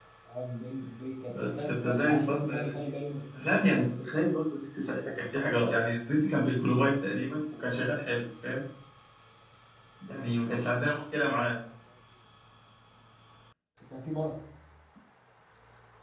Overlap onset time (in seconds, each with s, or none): 1.3 s